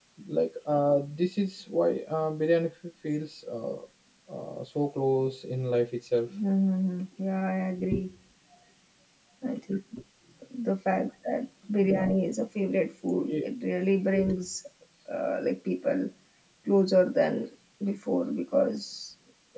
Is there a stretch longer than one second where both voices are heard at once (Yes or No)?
No